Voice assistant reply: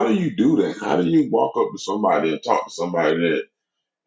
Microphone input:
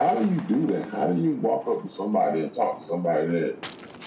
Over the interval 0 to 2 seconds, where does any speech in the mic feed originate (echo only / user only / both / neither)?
echo only